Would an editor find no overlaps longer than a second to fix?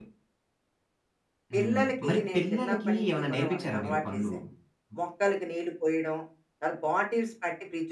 No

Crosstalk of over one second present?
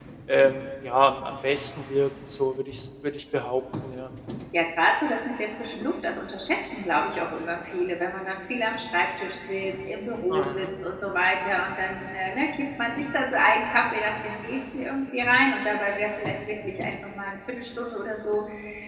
No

